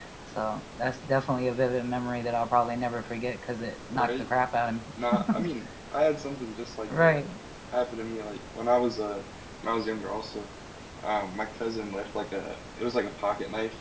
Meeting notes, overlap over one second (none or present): none